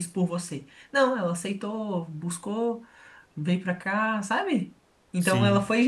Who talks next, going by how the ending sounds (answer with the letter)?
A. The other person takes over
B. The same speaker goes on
B